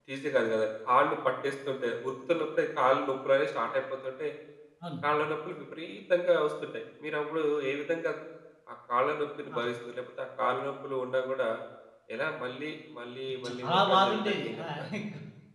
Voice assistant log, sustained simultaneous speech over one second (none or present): present